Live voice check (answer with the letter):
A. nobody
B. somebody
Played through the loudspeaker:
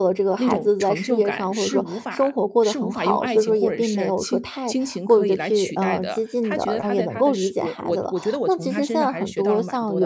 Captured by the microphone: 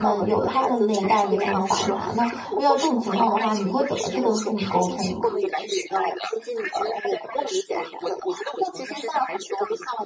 B